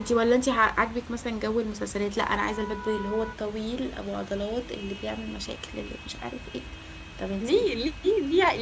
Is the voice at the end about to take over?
Yes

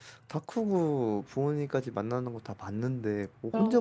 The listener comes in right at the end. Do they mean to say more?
No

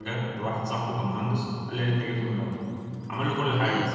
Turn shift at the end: No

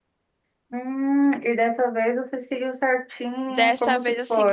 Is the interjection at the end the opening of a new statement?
Yes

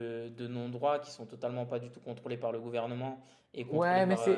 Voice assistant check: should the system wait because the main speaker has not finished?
No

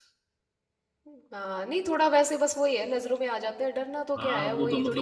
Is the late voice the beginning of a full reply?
Yes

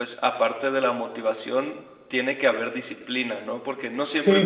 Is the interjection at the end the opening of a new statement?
Yes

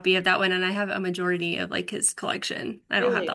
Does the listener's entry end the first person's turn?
Yes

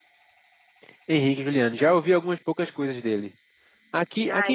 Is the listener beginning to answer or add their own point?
No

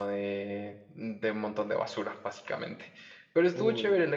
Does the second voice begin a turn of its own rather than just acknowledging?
No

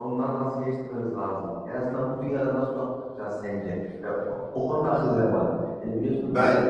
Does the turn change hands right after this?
No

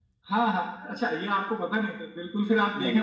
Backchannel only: Yes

